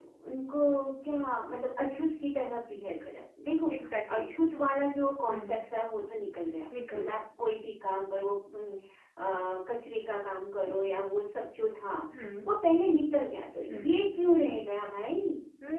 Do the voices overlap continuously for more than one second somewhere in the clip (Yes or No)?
No